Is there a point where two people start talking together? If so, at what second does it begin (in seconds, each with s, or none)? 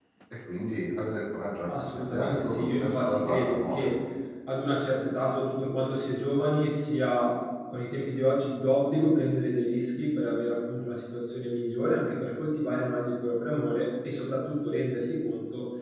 1.7 s